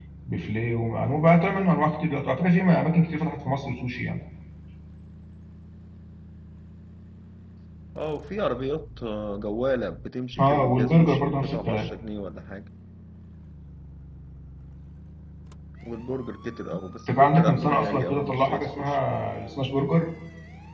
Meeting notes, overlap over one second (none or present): present